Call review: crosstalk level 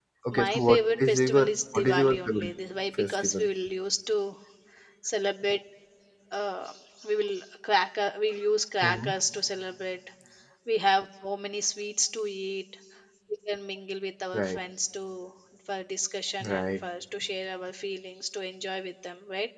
present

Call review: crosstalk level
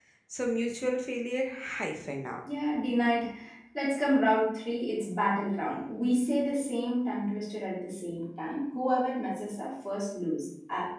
none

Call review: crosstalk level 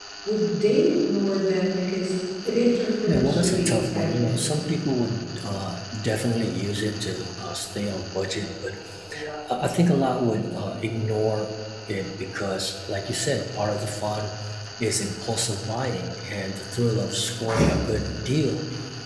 present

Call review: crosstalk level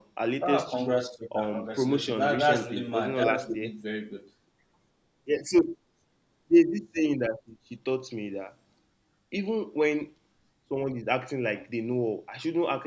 present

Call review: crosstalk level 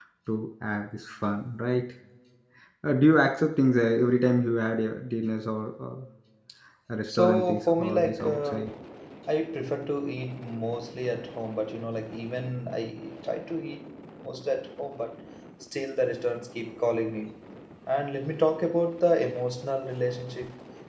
present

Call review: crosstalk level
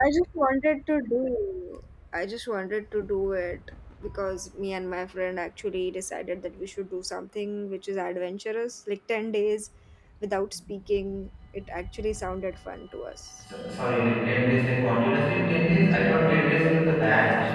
none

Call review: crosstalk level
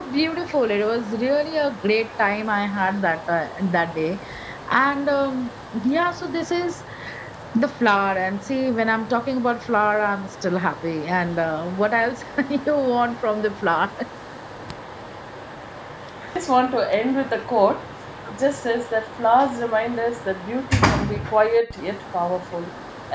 none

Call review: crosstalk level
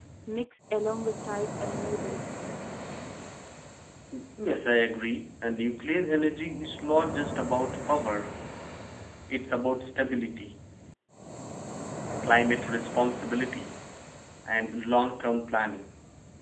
none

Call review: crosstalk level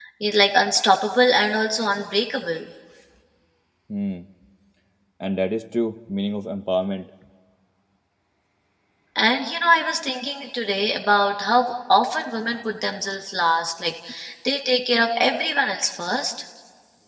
none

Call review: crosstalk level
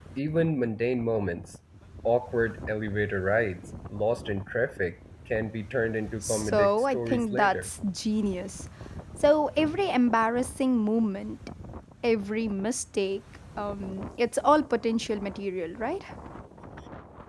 present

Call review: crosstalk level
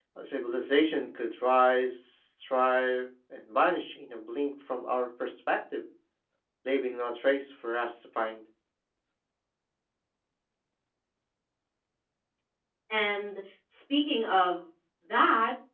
none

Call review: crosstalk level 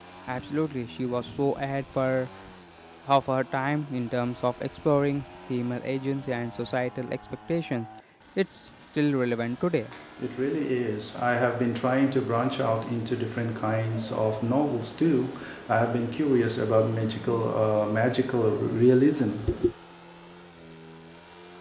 none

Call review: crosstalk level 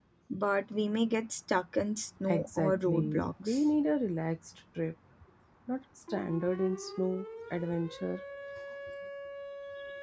present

